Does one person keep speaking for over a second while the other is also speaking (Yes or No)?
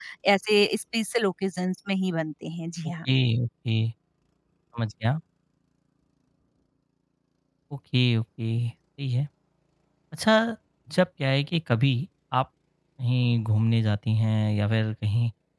No